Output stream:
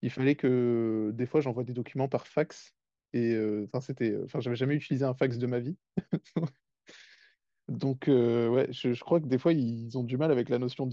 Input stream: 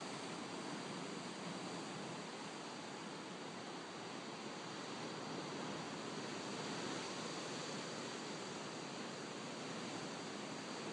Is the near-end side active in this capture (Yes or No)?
No